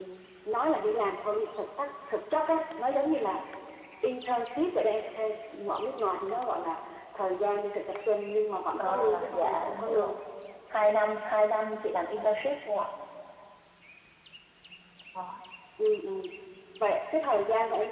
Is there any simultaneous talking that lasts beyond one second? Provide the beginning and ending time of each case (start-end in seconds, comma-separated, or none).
8.8-10.1